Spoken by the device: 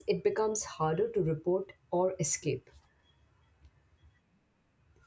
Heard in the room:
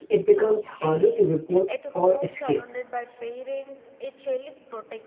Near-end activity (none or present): present